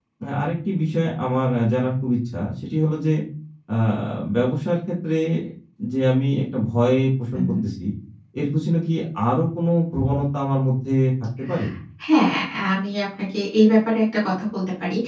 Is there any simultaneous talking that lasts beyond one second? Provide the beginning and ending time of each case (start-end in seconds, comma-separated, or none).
none